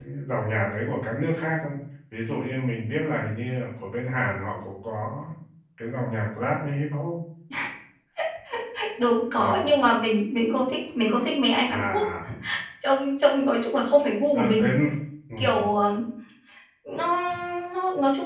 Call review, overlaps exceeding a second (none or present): none